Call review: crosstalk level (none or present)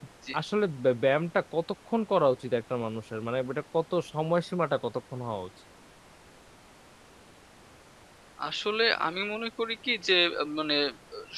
none